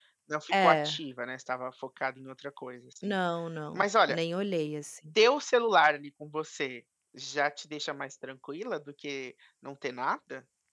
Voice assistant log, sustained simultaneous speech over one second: none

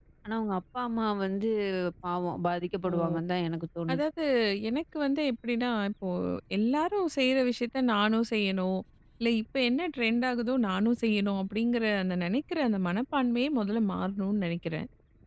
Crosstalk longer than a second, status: none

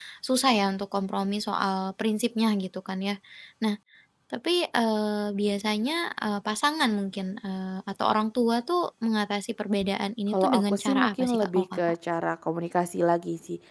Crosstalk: present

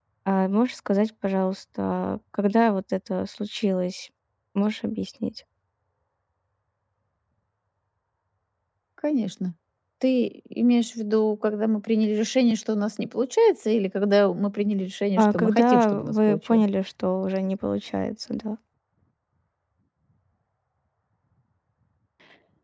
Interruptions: present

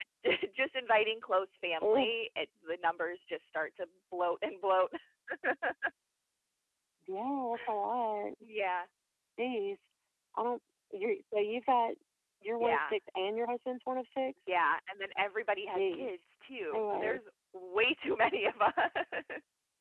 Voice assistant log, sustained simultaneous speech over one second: none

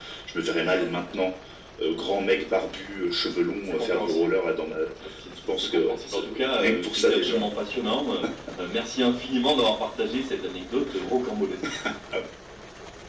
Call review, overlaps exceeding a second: present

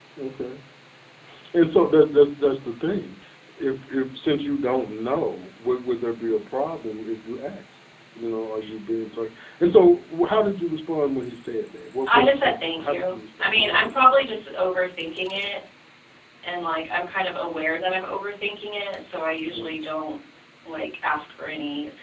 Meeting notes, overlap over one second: present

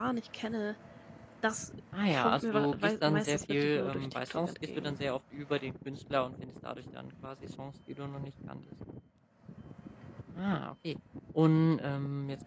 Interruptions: present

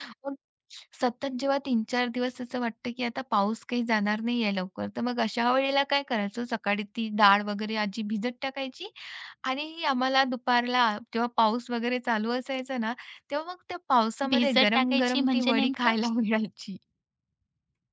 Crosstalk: present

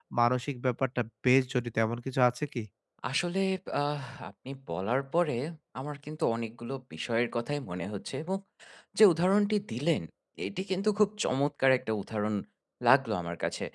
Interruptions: none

